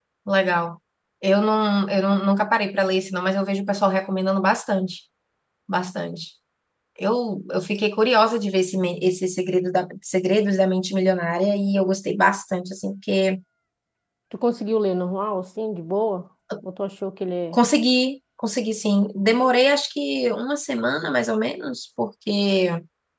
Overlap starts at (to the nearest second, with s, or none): none